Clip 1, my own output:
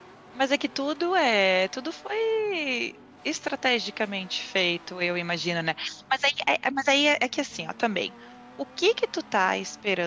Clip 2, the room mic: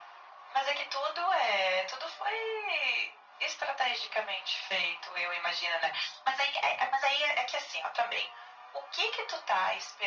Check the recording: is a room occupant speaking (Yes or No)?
No